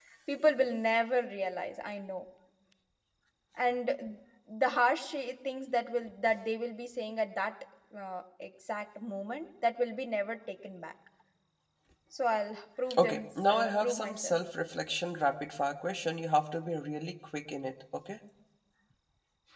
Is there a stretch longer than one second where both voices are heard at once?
Yes, from 12.9 s

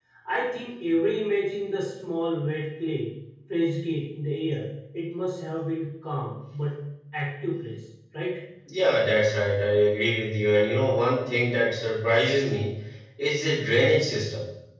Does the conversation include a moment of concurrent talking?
No

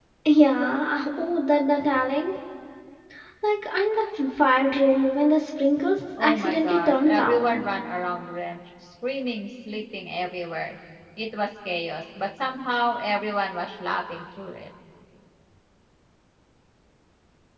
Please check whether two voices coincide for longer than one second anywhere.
Yes, from 6.2 s

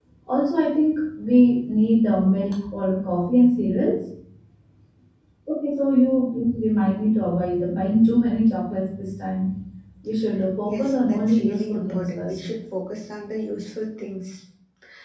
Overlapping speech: Yes, from 10.7 s

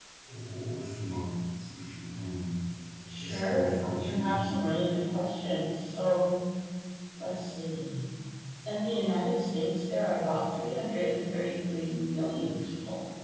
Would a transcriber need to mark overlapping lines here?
Yes, from 3.1 s

